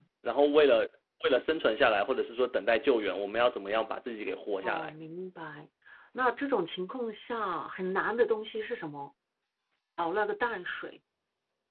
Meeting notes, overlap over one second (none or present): none